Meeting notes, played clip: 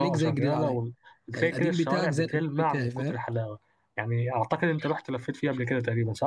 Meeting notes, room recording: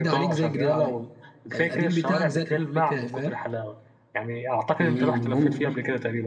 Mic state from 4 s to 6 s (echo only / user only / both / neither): both